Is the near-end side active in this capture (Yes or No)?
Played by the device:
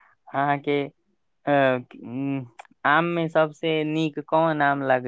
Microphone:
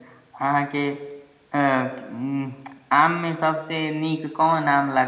No